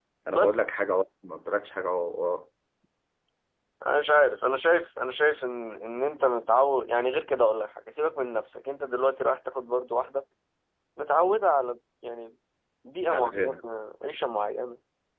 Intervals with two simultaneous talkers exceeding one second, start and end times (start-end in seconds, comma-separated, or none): none